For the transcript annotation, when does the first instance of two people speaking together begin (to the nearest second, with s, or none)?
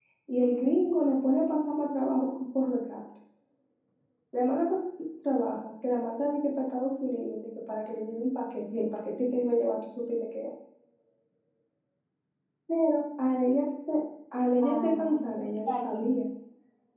15 s